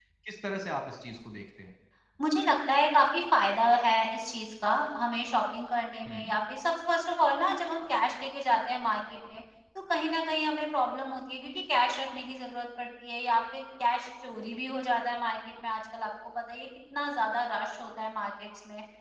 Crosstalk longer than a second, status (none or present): none